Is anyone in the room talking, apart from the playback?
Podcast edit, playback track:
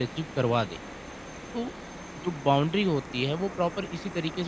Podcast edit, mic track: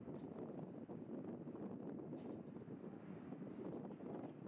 No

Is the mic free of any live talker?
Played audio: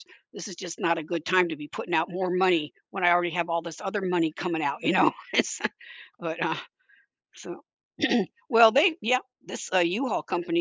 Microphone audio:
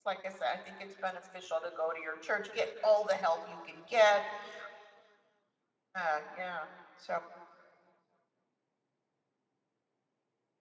No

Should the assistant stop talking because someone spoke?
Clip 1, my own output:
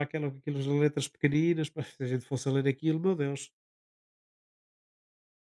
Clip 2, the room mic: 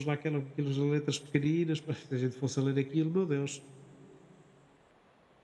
No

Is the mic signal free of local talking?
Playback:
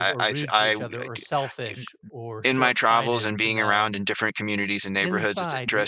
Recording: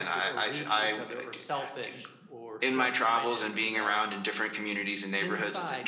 Yes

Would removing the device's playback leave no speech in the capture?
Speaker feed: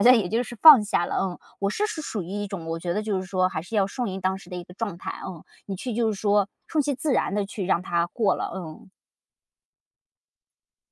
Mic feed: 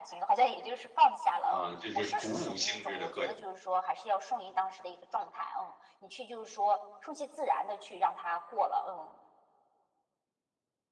No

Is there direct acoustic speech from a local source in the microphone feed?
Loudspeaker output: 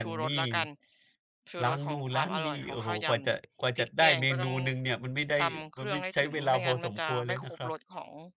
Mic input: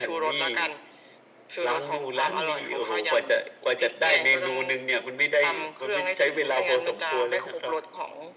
No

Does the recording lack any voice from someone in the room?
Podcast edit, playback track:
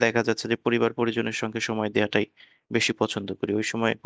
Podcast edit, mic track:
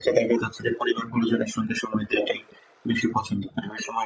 Yes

